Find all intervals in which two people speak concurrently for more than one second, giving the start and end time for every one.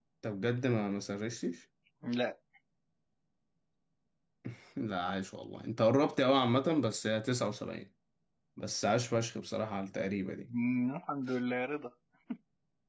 none

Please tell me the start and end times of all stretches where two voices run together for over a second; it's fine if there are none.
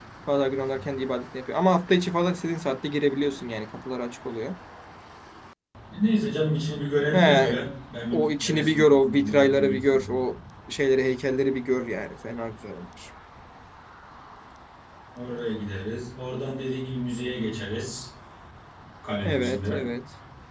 8.1-10.2

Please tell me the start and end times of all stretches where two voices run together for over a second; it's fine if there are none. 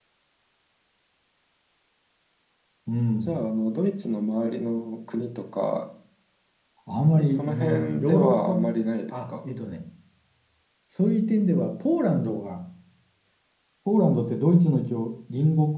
7.2-8.6

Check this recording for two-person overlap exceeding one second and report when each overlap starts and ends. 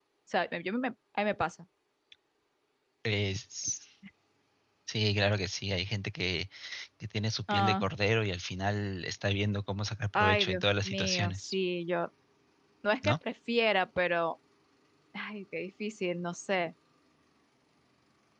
10.2-11.5

